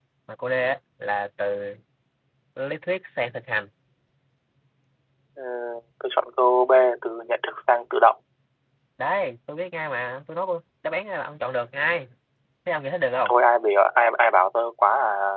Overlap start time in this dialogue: none

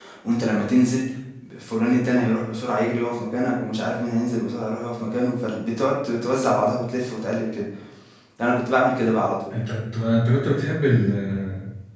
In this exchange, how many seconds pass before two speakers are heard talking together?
none

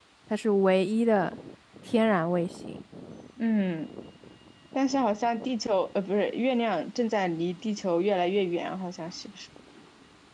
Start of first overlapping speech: none

